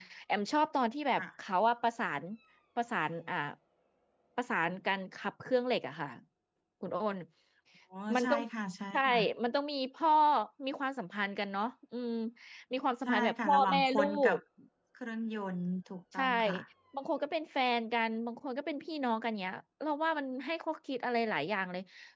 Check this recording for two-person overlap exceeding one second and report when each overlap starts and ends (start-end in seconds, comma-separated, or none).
13.1-14.4